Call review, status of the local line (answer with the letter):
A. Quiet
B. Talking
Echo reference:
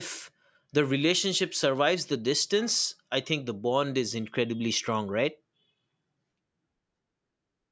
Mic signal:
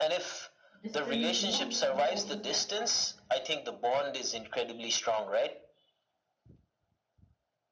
B